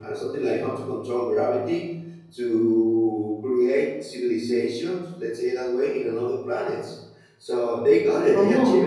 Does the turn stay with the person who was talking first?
Yes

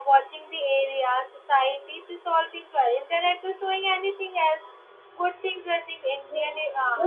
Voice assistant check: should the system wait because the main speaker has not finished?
No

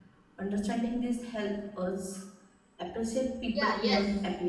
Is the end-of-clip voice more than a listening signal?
Yes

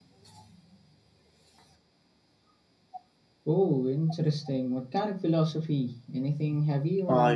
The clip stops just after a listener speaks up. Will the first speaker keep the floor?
No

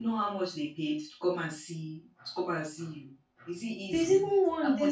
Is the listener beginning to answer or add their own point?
Yes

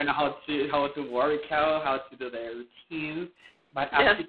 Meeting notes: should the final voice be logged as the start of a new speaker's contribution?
No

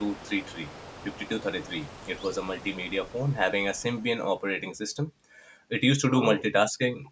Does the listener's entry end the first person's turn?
No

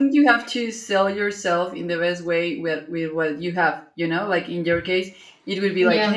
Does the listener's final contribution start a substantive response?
No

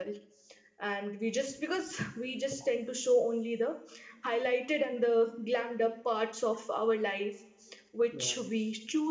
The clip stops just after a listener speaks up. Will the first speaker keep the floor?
Yes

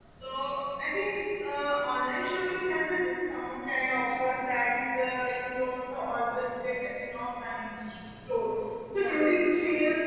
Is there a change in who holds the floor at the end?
No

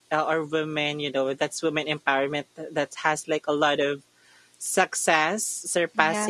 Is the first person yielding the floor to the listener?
No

